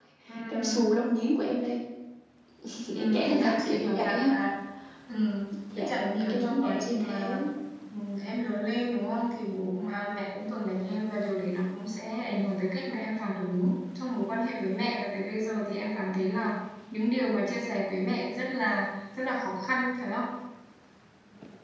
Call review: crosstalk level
present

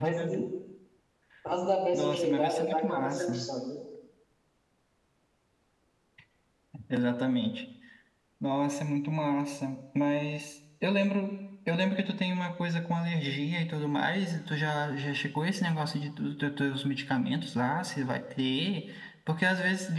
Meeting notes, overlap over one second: present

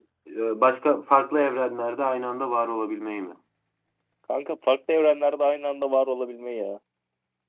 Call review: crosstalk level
none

